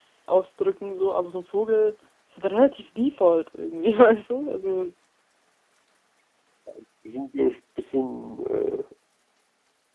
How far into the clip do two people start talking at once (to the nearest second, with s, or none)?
none